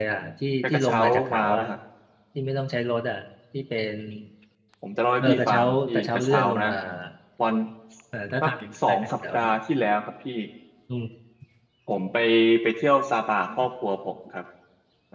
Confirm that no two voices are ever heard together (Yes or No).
No